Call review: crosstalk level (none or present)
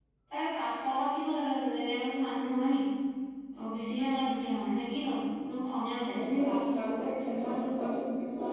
none